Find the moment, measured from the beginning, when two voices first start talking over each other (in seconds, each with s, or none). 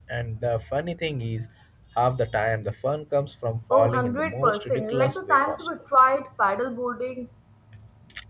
3.7 s